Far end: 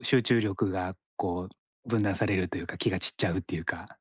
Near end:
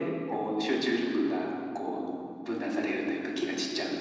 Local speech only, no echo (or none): none